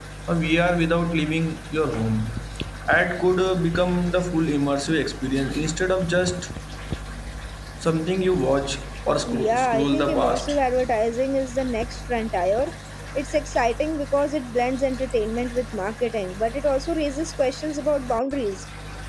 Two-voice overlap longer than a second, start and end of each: 9.3-10.6

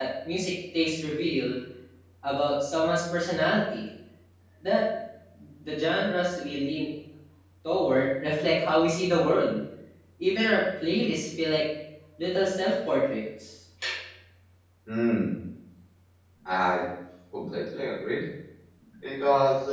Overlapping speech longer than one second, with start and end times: none

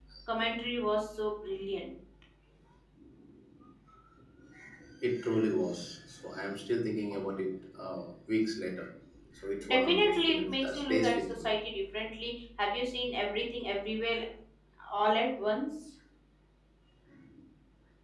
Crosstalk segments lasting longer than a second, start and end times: 9.7-11.5

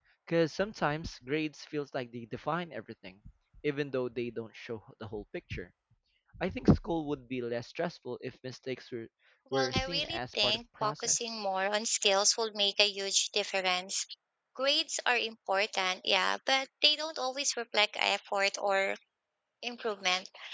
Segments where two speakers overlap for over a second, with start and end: 9.5-11.3

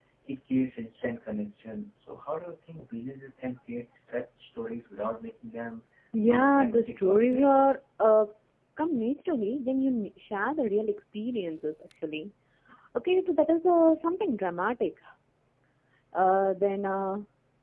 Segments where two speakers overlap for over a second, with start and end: 6.3-7.5

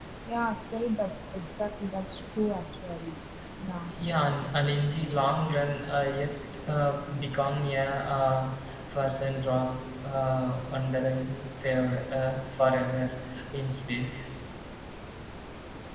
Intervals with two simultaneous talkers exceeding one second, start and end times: none

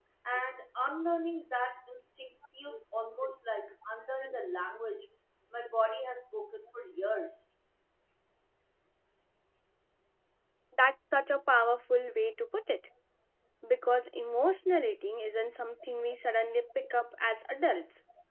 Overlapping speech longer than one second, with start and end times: none

